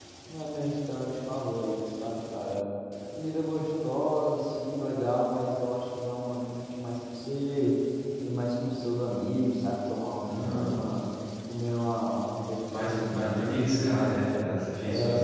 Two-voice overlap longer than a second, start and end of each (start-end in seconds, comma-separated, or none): 12.9-14.1